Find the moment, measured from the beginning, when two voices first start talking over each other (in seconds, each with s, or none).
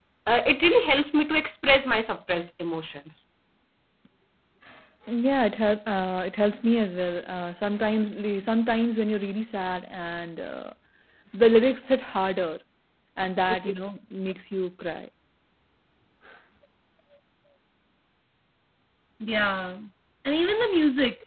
none